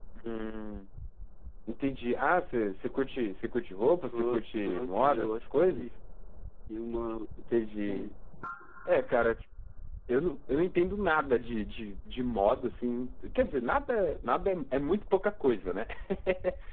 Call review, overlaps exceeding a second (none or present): present